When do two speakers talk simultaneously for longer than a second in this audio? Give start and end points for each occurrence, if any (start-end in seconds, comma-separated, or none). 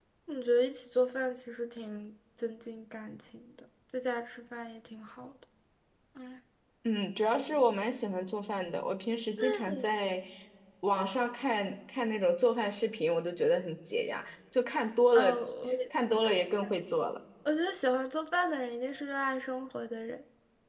none